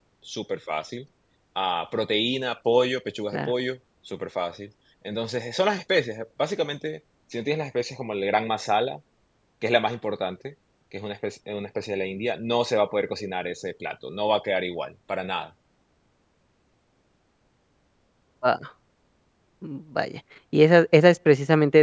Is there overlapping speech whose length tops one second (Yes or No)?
No